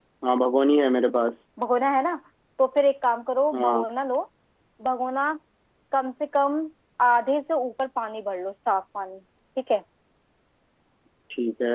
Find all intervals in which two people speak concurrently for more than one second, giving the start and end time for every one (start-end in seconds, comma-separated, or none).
none